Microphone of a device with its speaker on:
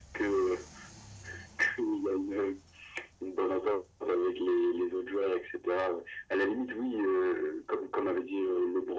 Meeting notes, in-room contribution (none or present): none